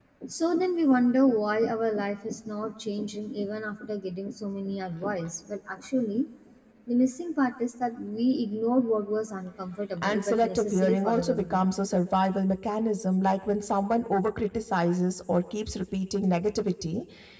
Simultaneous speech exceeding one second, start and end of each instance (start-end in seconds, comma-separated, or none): 10.0-11.6